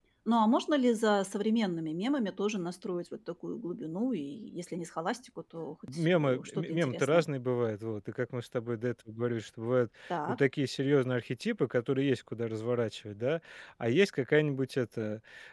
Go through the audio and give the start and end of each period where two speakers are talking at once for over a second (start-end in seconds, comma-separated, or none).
5.9-7.2